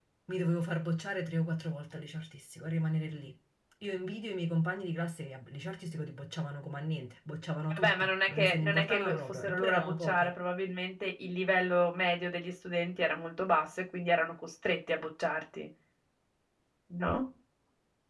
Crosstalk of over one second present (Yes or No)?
Yes